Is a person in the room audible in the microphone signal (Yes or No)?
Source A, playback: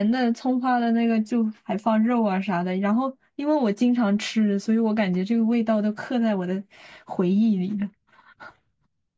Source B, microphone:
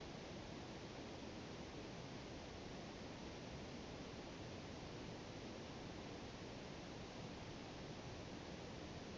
No